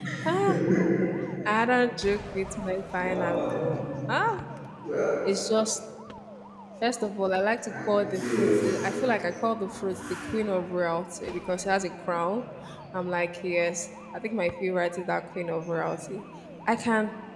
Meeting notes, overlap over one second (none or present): present